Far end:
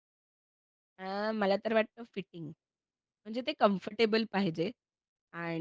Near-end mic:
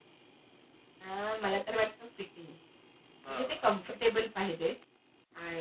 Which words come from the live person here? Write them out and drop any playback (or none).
हां.